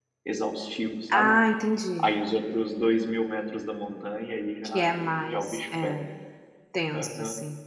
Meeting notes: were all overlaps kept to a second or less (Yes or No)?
No